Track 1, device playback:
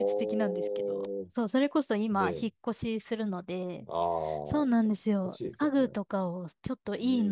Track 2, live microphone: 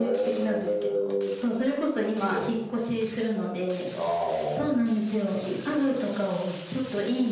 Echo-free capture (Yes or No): No